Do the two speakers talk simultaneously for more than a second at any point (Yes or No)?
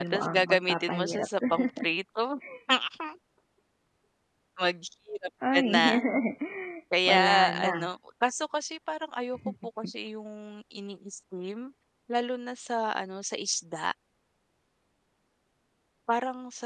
Yes